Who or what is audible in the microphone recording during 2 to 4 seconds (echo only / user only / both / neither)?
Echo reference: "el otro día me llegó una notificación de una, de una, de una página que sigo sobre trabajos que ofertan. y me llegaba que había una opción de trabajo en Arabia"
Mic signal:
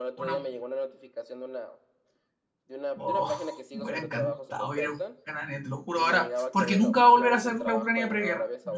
both